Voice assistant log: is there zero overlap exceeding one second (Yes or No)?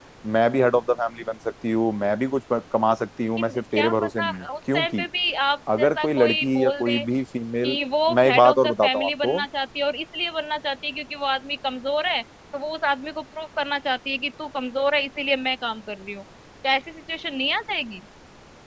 No